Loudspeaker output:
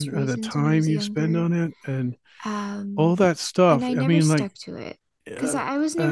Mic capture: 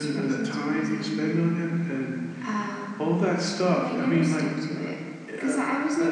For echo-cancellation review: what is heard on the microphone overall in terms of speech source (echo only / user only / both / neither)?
echo only